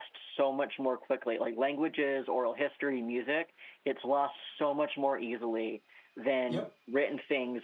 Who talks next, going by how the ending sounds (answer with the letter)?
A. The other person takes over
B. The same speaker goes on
B